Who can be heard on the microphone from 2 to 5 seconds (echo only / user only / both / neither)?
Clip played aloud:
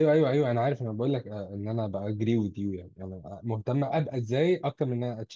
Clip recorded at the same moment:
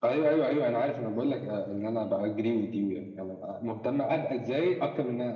echo only